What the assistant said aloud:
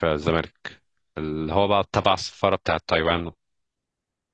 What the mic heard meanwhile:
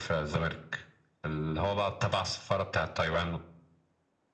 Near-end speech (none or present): none